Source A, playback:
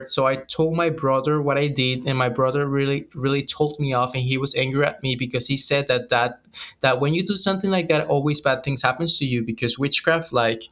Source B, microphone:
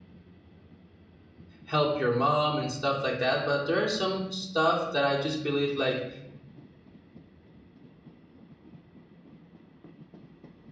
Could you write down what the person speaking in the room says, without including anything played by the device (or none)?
help your mom and stuff like that. But there are some stuff that I just believe like